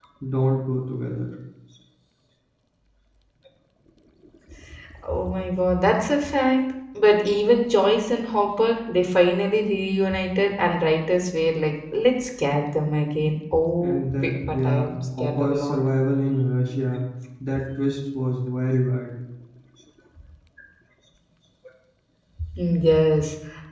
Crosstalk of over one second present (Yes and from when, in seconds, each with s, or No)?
Yes, from 13.8 s